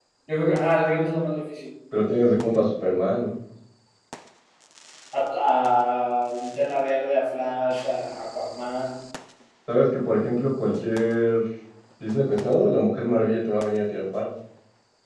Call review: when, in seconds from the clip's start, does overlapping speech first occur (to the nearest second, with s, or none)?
none